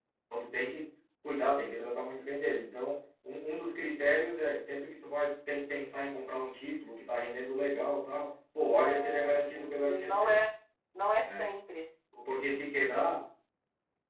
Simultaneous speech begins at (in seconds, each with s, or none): 8.7 s